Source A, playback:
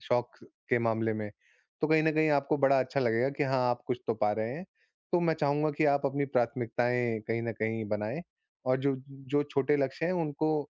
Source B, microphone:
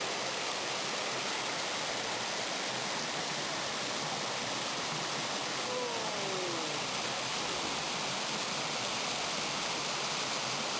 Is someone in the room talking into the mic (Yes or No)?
No